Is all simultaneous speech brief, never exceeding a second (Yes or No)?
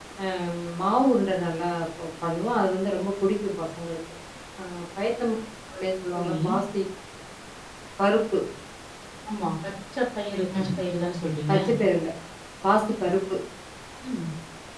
Yes